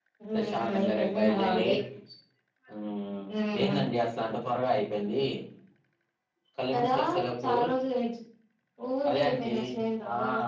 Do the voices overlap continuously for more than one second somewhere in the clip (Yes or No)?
Yes